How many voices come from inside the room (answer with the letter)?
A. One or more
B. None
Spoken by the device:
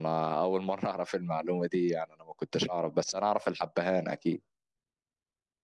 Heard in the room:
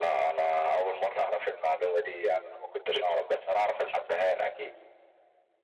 B